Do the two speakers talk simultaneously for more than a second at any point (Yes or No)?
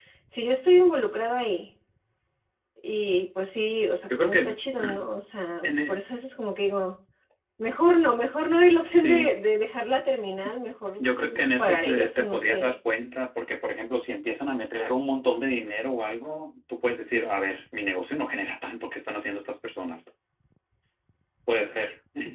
Yes